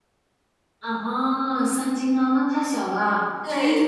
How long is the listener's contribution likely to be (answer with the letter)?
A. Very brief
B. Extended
B